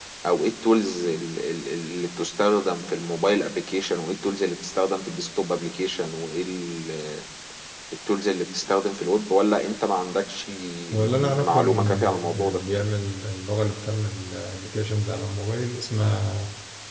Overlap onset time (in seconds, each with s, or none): 10.9 s